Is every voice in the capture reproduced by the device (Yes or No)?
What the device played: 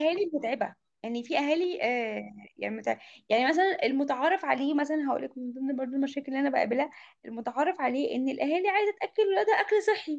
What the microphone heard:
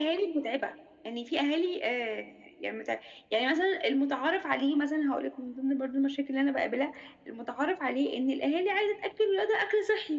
Yes